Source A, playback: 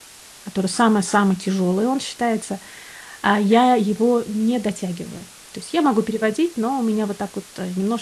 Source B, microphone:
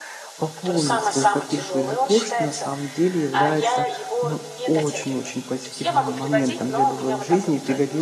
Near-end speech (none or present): present